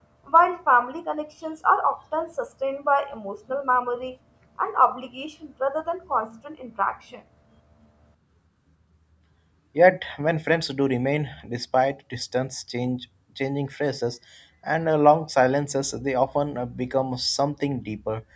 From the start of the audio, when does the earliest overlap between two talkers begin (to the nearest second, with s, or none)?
none